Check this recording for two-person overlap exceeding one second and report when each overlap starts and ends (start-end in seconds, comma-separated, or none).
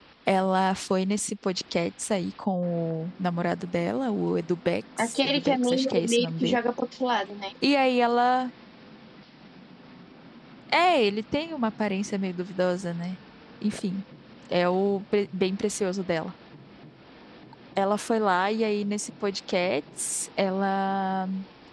5.0-6.6